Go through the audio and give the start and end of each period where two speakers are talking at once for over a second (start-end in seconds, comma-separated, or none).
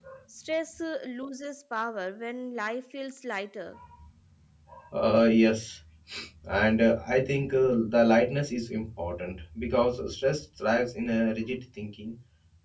none